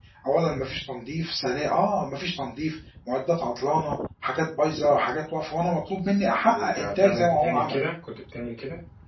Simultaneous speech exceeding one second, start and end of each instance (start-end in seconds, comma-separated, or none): 6.4-7.8